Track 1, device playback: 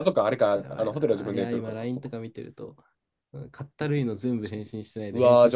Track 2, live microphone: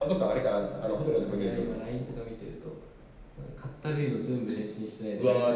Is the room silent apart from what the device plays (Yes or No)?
Yes